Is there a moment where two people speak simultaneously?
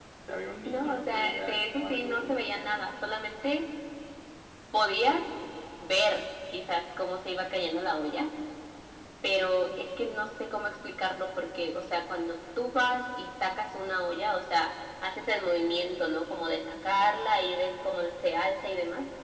Yes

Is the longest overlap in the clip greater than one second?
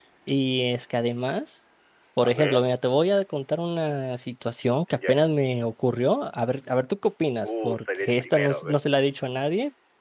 Yes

